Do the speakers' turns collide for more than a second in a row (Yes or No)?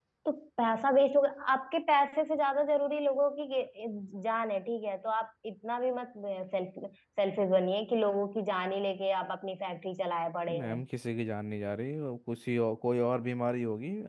No